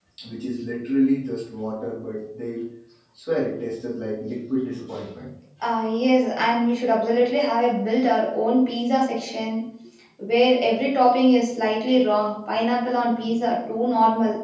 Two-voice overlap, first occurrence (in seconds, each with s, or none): none